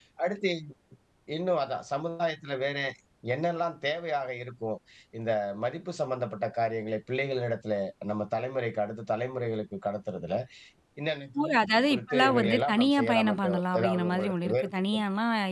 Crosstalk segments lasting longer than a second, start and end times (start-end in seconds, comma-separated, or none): 11.9-15.0